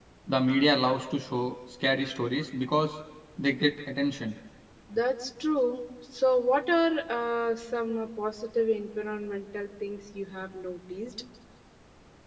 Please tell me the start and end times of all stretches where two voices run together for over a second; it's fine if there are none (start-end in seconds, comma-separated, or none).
none